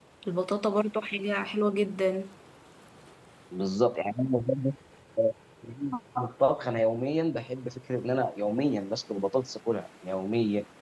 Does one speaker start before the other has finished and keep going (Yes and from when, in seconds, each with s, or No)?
No